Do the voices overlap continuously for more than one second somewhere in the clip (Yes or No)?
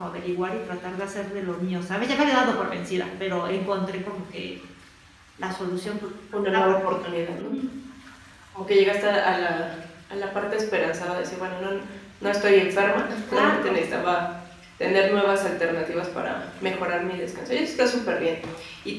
No